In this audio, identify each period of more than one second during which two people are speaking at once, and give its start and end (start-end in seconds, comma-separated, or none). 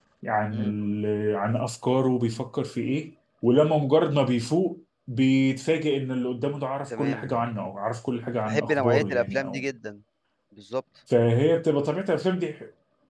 8.5-9.7